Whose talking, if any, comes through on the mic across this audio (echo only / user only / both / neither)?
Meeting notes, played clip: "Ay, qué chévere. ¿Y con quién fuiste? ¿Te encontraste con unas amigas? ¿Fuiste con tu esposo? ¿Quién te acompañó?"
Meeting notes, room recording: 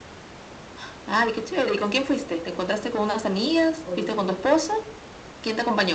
both